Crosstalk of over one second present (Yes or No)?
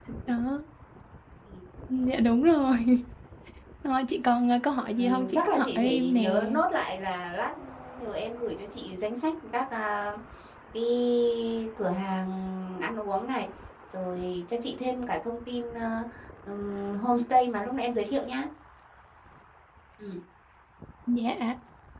Yes